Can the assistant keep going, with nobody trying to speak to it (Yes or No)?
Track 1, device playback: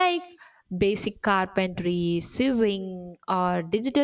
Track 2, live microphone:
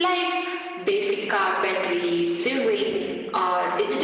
Yes